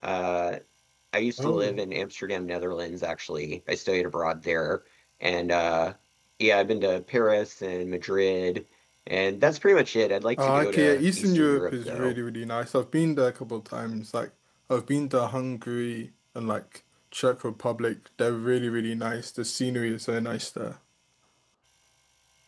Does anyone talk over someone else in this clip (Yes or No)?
Yes